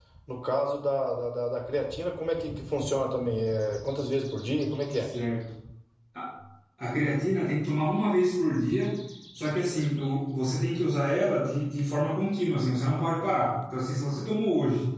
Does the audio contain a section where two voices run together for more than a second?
No

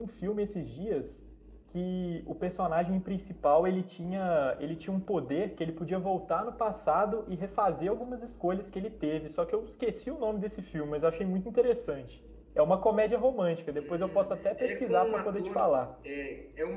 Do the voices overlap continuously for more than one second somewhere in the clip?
Yes, from 13.7 s

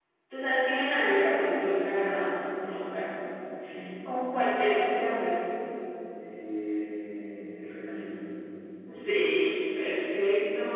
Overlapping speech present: No

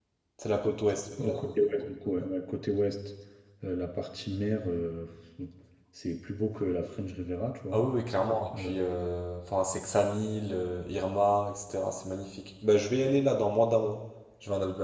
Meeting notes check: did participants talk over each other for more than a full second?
No

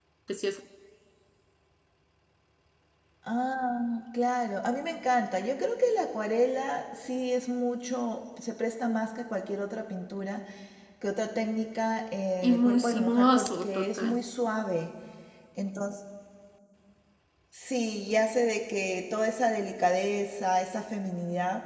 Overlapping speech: Yes, from 12.4 s

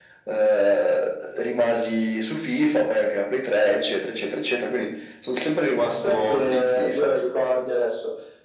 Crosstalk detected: Yes, from 5.8 s

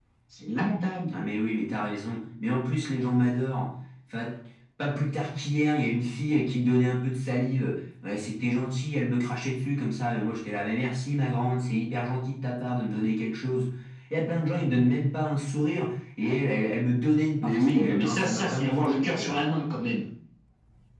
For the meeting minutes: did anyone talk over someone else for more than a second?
Yes, from 17.4 s

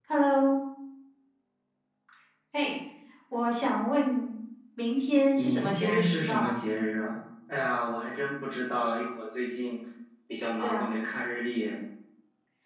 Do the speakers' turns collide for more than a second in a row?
Yes, from 5.4 s

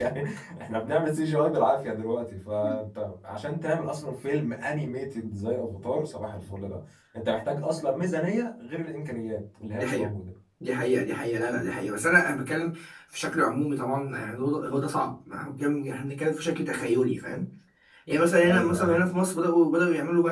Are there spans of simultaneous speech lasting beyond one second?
No

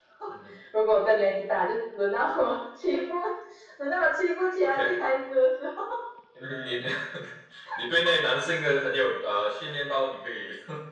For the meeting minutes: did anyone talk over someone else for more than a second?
No

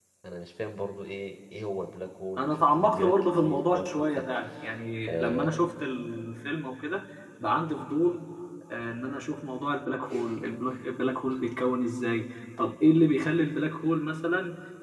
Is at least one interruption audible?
Yes, from 2.4 s

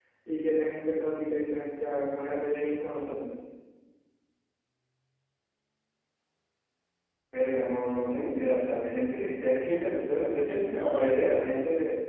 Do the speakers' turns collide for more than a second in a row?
No

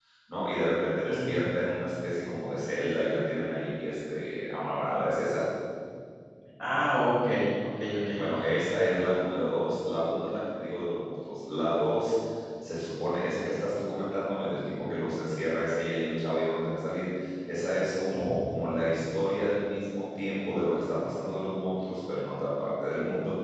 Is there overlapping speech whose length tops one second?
No

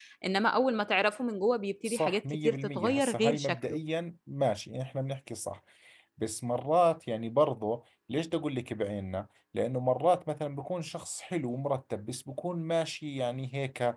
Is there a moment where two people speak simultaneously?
Yes, from 1.8 s

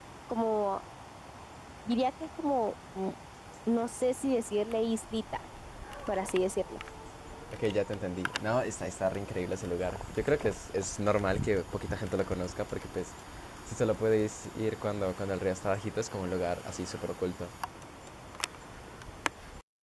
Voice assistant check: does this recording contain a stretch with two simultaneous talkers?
No

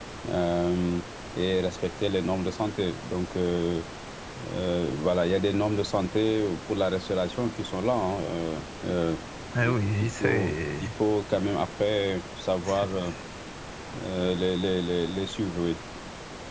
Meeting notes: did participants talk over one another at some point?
Yes, from 9.6 s

